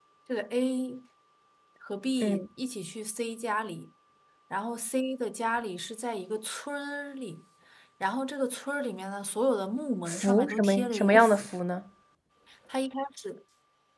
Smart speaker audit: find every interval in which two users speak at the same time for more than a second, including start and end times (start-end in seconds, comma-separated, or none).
10.1-11.5